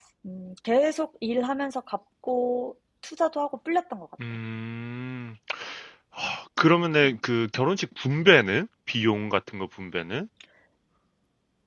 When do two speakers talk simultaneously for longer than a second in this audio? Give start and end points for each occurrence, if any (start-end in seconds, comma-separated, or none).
none